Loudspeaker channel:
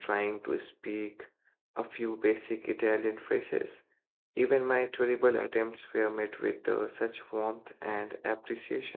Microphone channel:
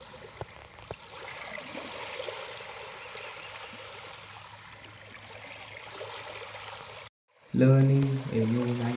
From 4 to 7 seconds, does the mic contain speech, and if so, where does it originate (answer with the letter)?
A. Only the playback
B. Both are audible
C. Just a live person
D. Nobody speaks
D